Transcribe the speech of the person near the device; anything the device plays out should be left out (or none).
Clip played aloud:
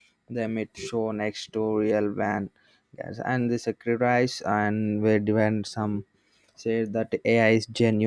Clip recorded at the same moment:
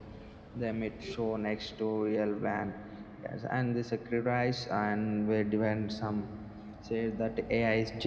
none